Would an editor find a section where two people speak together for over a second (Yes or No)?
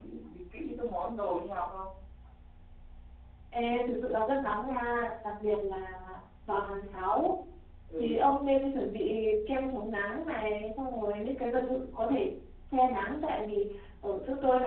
No